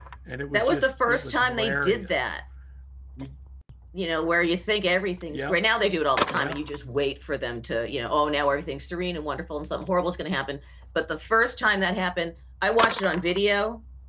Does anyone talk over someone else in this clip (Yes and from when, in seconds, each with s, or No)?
Yes, from 0.5 s